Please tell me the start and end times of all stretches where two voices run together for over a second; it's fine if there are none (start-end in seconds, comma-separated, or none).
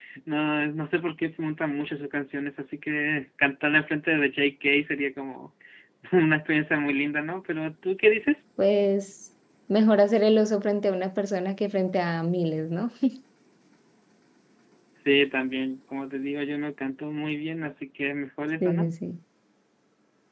none